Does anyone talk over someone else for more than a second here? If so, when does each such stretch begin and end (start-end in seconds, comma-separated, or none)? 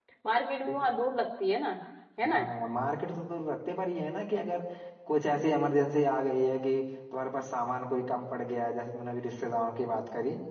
none